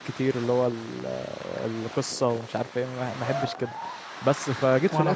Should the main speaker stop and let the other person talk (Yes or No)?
No